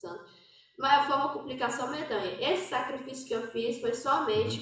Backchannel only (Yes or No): Yes